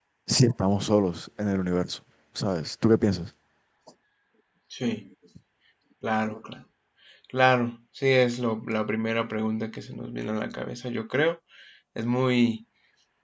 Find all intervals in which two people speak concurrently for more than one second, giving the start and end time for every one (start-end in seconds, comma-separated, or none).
none